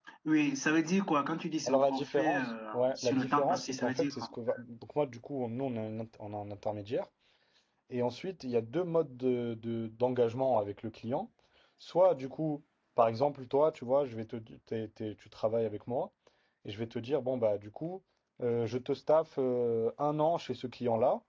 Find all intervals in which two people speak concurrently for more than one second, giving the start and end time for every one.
1.7-4.3

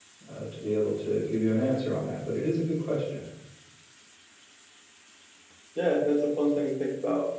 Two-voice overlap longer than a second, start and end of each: none

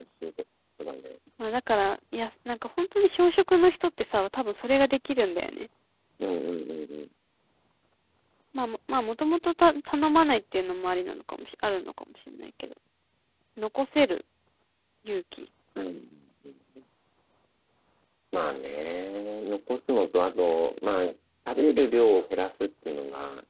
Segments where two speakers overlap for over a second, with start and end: none

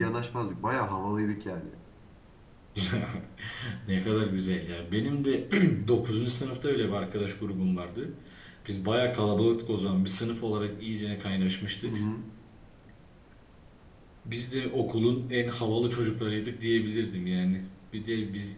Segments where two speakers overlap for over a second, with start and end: none

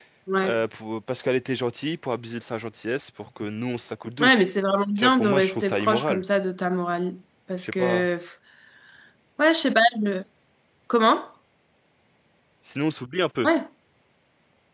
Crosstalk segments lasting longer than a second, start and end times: 5.0-6.2

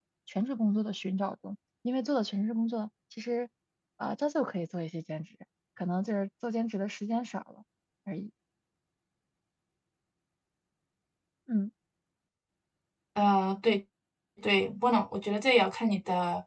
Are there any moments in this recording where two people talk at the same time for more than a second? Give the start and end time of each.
none

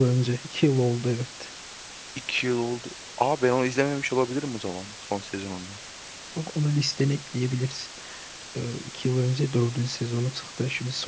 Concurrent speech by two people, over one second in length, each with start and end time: none

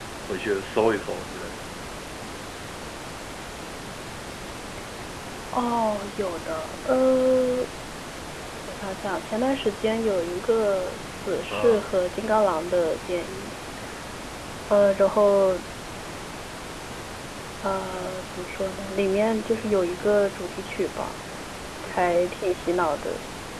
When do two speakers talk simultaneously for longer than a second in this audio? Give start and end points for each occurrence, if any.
none

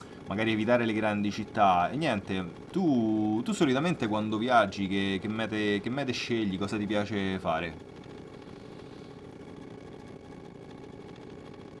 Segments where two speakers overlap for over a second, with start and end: none

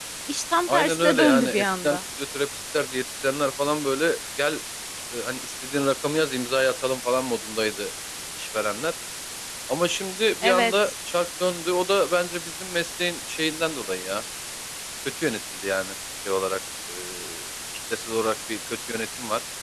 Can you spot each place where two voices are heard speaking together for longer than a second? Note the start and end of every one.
0.7-2.0

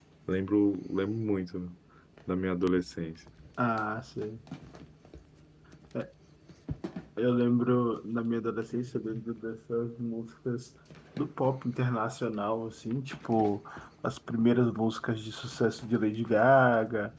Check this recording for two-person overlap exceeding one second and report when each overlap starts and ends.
none

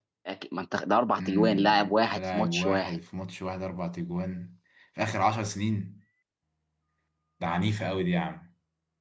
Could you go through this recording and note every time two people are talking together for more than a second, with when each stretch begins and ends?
1.2-3.0

